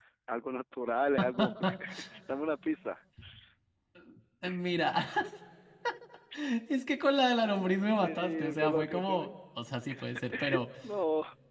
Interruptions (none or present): present